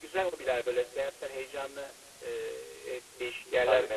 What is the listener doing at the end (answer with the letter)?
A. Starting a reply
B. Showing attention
B